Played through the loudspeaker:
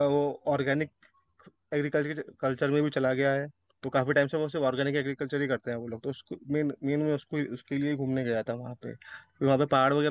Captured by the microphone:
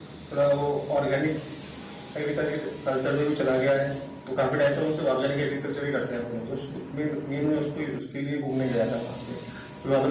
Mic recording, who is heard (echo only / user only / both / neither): echo only